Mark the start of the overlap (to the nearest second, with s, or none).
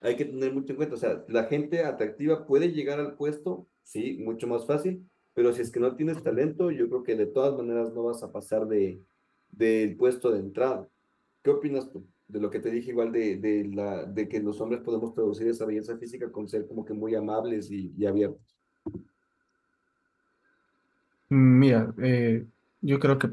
none